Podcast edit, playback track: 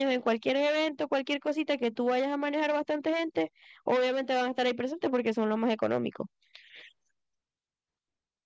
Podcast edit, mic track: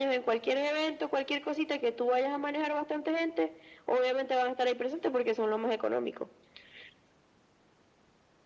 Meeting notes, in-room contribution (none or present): none